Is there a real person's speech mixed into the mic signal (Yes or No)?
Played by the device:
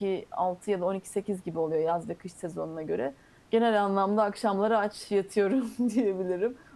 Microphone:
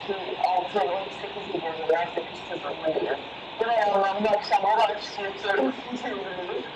No